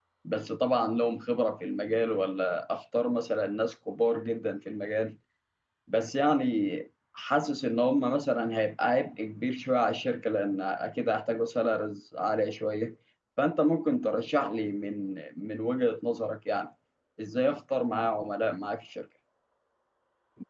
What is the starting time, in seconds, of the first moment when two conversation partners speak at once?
none

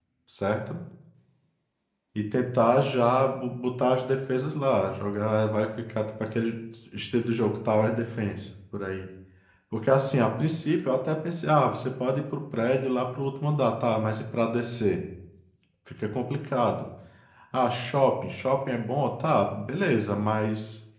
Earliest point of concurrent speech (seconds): none

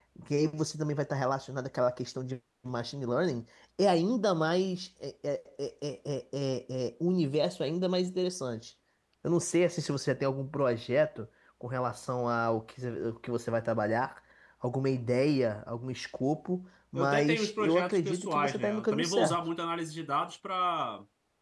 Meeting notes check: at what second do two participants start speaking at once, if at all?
17 s

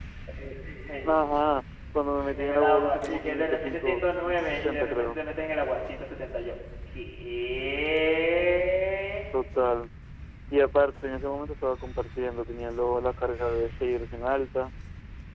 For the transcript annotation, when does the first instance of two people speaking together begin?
2 s

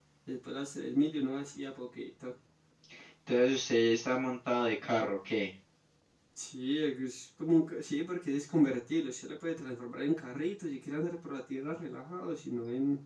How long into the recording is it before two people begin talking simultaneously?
none

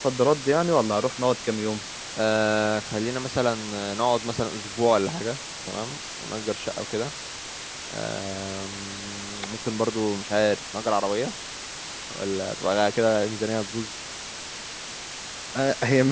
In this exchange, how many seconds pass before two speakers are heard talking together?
none

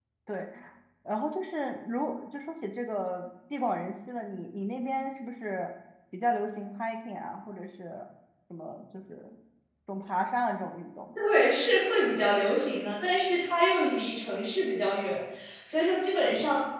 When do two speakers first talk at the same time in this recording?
none

